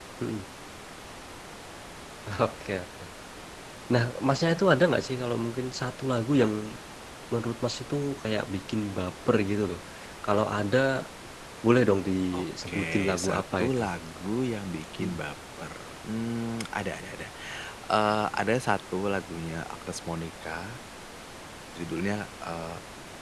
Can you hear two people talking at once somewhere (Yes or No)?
Yes